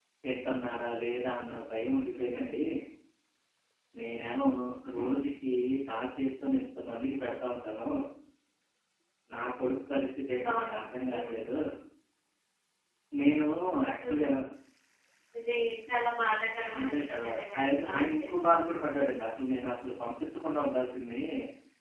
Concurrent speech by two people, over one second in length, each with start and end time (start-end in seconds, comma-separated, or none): 16.8-18.7